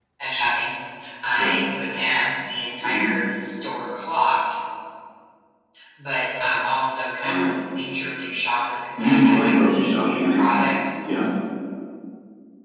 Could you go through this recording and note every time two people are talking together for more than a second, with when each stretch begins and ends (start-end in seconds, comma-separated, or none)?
9.0-10.4